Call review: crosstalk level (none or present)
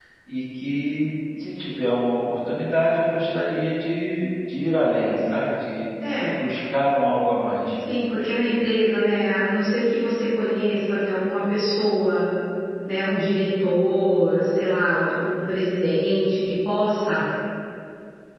none